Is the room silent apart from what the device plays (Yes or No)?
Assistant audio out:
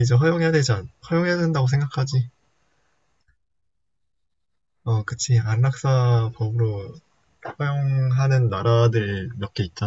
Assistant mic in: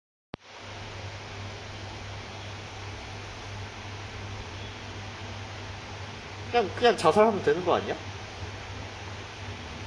No